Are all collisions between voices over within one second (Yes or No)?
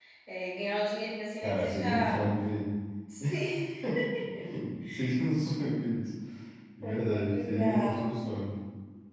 No